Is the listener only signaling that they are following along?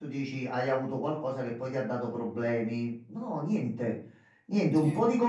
Yes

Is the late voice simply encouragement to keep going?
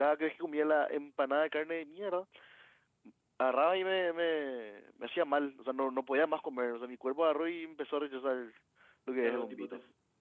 No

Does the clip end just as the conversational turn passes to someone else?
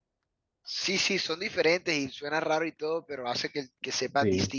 Yes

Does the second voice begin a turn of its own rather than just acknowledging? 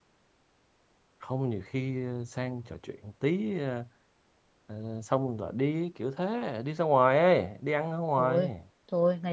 Yes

